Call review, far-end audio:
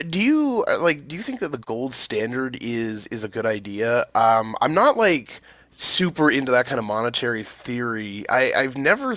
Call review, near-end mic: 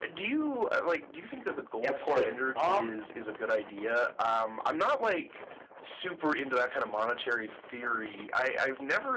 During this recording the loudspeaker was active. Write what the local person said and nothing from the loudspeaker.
Yeah, of course. Um,

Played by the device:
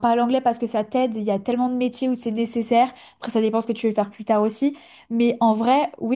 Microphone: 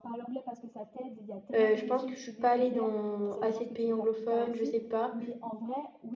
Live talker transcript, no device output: Euh, je pense que je suis pas allée dans assez de pays anglophones, je sais pas.

